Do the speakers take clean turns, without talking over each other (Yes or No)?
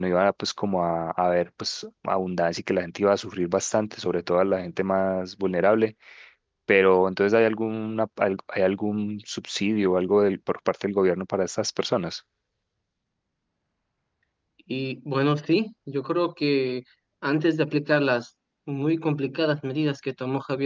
Yes